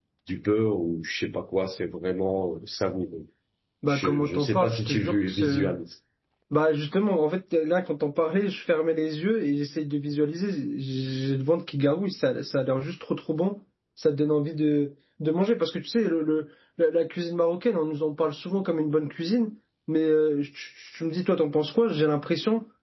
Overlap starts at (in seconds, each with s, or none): 3.9 s